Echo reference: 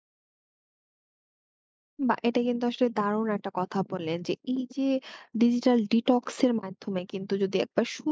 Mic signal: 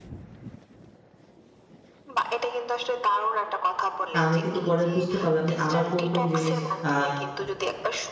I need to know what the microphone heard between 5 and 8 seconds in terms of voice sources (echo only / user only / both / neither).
both